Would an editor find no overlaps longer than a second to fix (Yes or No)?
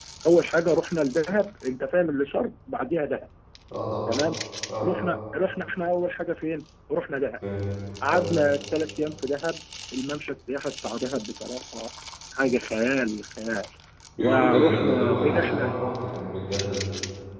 No